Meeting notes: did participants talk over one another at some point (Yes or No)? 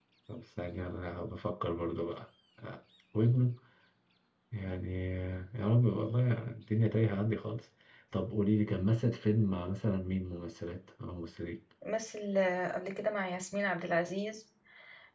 No